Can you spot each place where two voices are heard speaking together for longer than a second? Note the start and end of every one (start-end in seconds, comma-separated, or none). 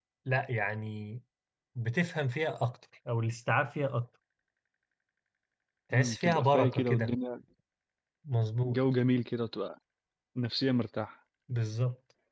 5.9-7.1